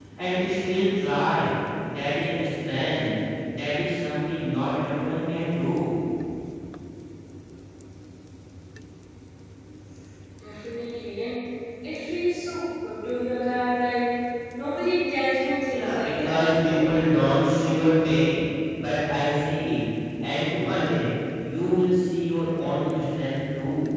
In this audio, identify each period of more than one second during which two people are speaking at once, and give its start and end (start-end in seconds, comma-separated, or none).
15.6-16.9